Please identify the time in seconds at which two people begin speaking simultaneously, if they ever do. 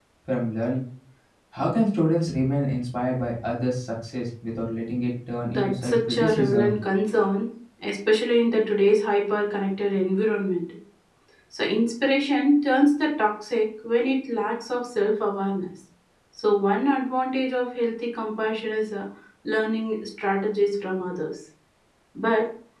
5.5 s

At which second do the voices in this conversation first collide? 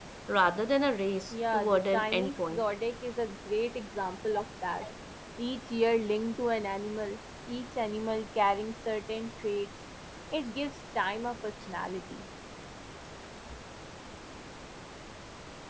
1.3 s

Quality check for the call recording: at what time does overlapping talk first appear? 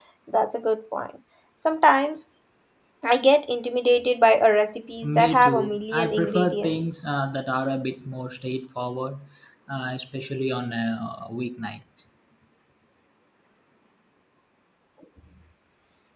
5.0 s

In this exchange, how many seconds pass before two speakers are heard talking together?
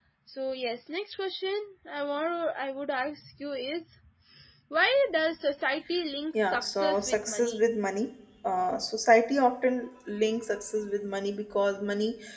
6.3 s

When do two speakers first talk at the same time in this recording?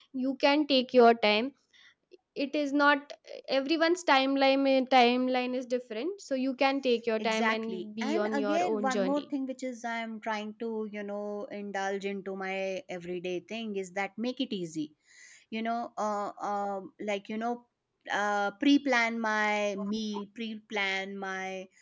7.2 s

